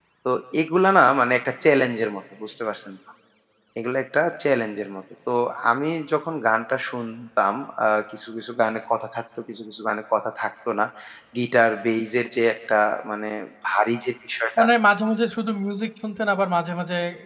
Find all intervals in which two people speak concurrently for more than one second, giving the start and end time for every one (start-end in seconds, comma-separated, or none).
none